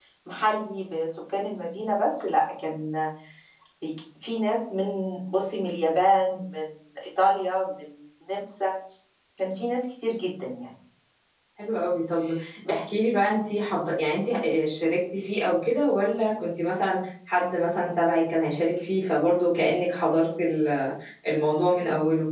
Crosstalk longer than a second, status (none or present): none